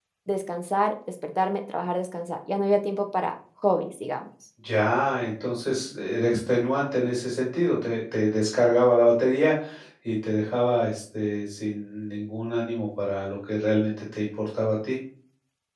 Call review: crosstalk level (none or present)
none